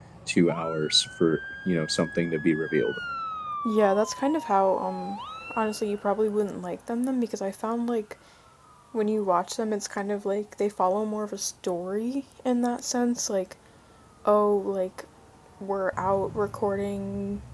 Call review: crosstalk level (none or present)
none